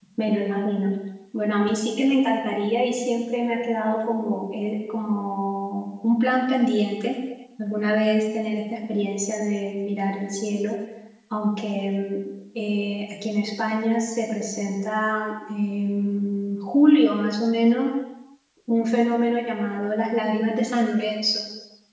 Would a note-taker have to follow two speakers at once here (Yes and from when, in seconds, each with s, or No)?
No